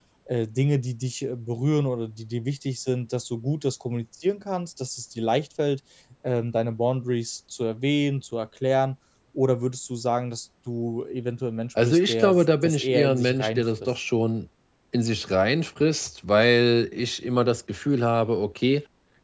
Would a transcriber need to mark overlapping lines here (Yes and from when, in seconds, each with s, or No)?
Yes, from 11.8 s